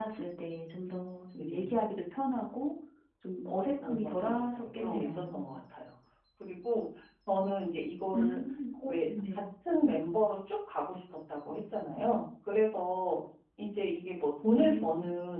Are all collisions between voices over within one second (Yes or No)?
No